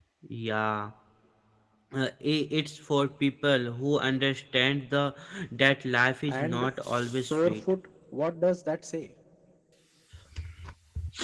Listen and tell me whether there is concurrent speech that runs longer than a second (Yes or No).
Yes